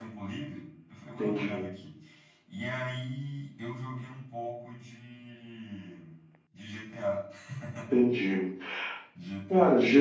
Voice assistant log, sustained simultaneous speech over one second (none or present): none